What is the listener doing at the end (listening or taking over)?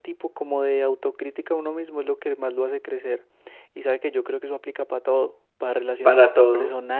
listening